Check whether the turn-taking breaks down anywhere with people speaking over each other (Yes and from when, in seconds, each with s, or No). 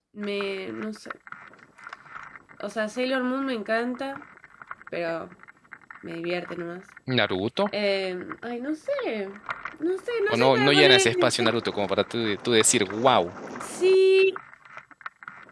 Yes, from 10.3 s